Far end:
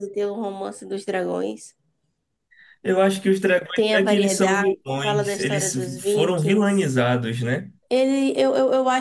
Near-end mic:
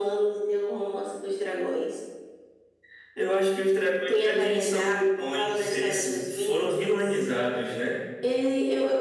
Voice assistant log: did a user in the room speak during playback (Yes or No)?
No